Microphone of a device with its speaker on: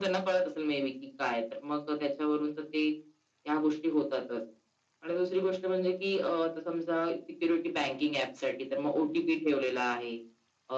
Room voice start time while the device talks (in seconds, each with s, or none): none